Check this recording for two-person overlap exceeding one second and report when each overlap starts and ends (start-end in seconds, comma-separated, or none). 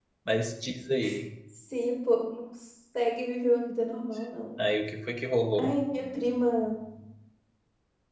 none